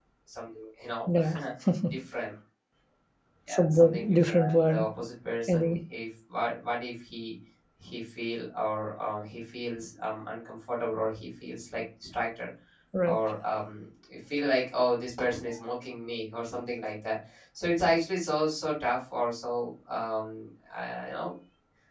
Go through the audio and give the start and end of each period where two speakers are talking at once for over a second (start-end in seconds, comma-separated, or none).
3.5-4.9